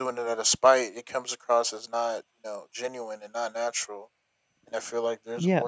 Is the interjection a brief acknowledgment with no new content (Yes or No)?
Yes